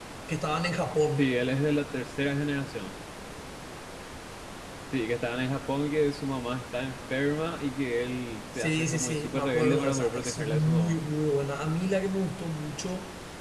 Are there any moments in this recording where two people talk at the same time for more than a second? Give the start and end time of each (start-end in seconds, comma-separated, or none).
8.6-11.0